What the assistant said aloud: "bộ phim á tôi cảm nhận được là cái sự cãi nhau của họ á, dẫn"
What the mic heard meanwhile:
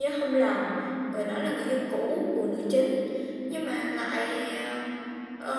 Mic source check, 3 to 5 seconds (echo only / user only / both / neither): user only